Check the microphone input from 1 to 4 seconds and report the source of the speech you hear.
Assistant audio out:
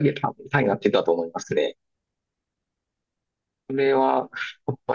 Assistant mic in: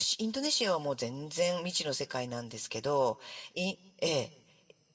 user only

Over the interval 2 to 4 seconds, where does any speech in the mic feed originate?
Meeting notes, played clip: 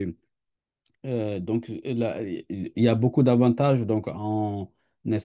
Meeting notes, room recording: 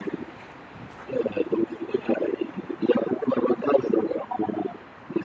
echo only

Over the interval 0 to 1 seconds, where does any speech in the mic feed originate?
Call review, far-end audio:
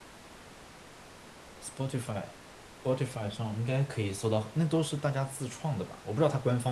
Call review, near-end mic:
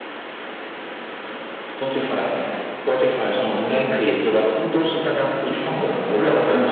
neither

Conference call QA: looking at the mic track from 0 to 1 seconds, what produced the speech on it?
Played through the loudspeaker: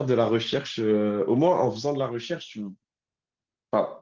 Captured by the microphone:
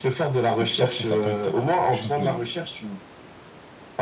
both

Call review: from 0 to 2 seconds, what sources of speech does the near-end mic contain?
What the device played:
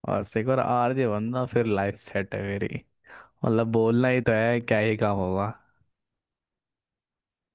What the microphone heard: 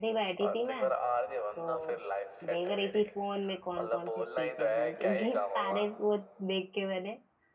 both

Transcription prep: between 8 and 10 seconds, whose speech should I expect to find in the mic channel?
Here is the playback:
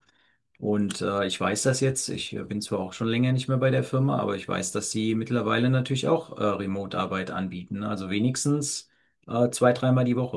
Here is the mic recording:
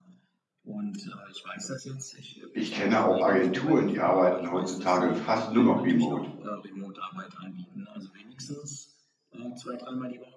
echo only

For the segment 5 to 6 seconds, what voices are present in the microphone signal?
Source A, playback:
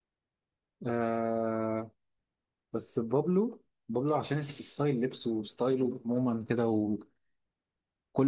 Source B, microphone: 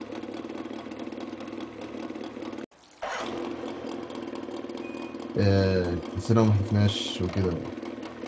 user only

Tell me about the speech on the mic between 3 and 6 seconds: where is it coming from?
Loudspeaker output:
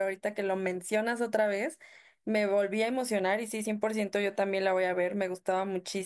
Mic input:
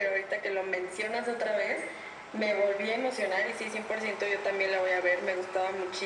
echo only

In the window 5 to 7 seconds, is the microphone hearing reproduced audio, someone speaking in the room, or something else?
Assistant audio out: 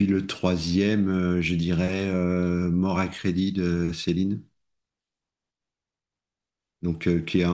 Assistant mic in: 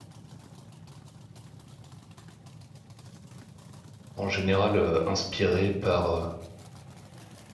user only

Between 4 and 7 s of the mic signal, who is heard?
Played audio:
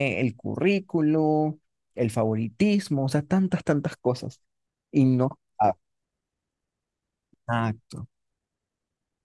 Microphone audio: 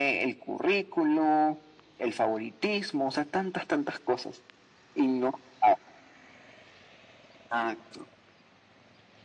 echo only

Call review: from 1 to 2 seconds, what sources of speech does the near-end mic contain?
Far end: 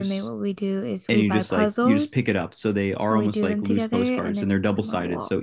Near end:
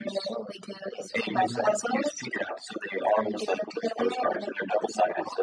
both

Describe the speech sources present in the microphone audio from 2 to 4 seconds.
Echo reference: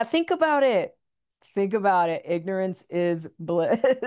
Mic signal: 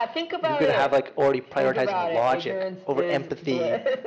both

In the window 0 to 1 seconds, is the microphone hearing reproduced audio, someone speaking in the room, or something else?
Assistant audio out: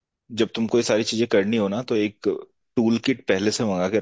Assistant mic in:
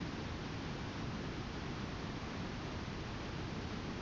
neither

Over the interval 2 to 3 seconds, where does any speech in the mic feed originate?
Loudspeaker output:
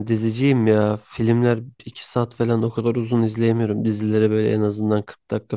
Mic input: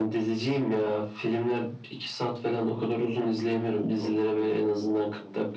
both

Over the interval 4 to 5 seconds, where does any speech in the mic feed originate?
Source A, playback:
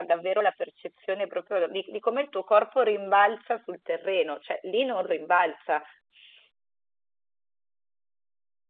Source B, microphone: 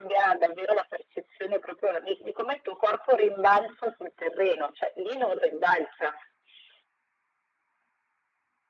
echo only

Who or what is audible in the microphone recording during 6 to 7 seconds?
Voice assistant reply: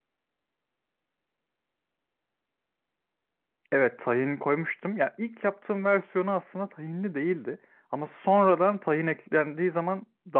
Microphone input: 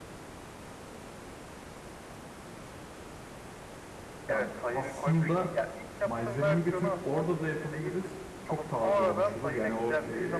both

